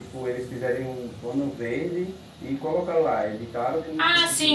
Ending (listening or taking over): taking over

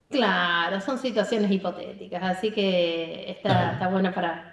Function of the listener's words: listening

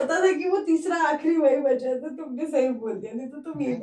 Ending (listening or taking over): taking over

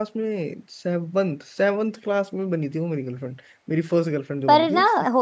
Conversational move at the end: taking over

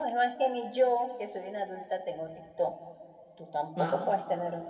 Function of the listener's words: listening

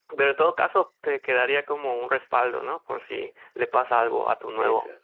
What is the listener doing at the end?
listening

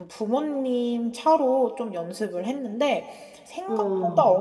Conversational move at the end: listening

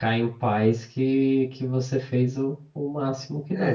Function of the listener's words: taking over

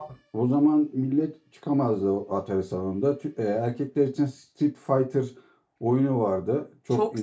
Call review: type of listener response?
taking over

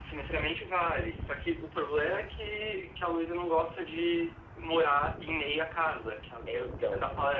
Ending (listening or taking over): listening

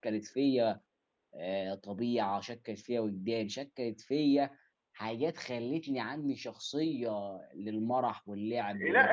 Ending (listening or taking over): taking over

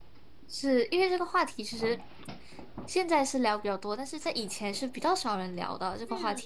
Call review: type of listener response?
taking over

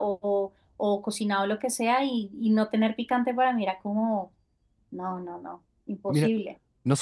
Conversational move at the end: taking over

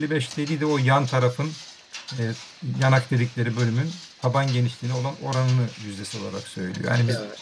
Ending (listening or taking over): taking over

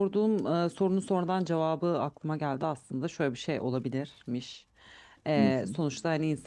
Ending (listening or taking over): listening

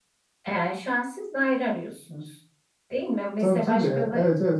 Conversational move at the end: taking over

